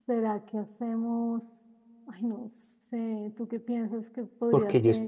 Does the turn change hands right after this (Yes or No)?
Yes